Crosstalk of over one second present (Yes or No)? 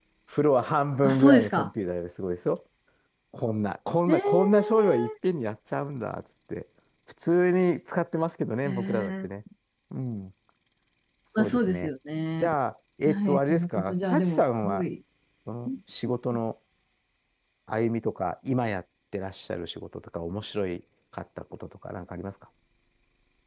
Yes